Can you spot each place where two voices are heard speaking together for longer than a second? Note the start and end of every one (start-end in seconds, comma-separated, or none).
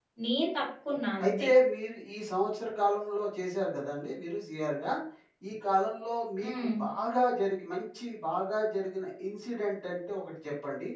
none